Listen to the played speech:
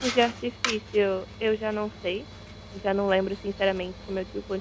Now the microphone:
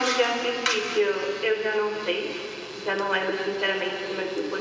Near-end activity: none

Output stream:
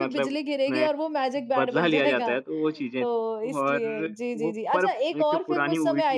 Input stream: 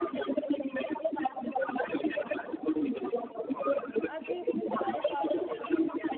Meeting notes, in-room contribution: present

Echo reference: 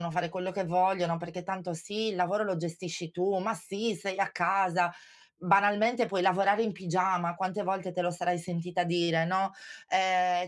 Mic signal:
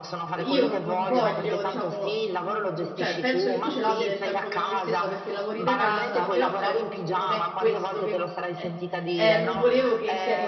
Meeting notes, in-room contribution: present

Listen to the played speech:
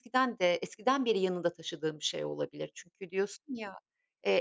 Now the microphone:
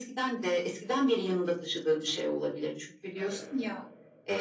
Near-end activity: present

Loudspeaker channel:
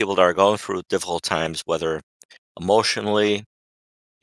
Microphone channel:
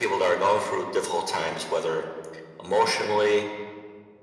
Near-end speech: none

